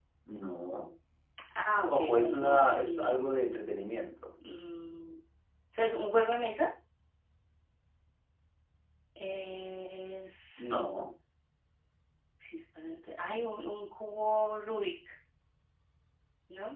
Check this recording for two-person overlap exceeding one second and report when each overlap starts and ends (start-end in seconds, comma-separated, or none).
1.9-3.3